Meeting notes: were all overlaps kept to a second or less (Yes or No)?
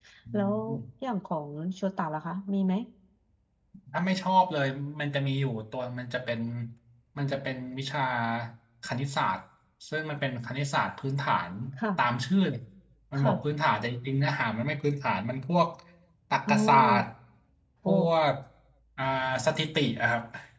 Yes